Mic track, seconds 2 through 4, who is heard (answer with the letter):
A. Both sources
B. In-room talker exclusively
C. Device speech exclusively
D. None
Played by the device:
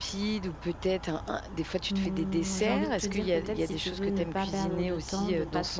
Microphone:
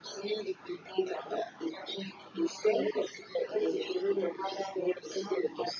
C